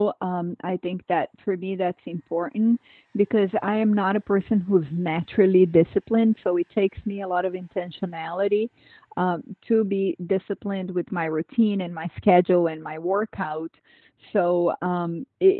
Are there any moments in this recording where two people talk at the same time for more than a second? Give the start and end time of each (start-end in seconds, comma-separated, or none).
none